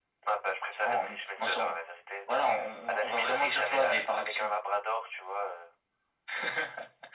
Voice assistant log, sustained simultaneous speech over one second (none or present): present